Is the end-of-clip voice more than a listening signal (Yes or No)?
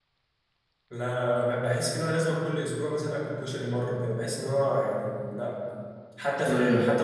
No